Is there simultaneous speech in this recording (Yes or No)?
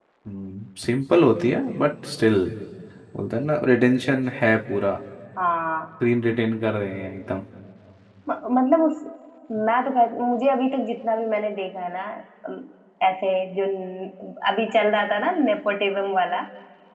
No